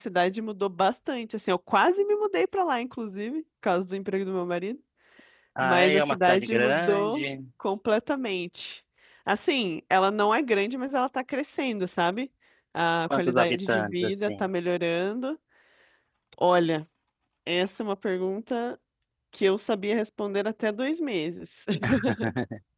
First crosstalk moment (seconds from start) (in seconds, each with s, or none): 5.6 s